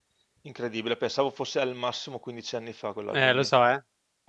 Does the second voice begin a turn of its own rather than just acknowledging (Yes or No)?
Yes